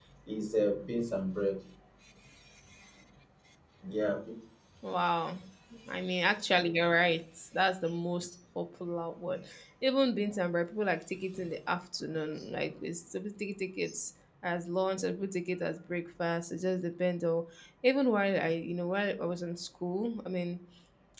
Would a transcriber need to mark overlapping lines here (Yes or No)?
No